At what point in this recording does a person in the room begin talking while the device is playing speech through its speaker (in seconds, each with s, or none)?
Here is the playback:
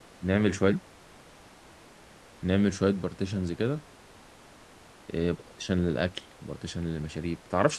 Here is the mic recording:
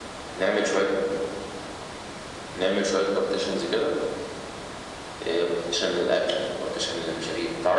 none